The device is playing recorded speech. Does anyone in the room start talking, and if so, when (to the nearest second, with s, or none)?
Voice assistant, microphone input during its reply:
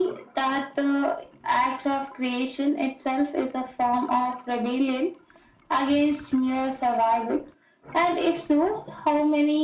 none